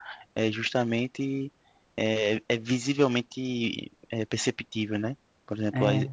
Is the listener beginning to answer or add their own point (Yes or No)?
No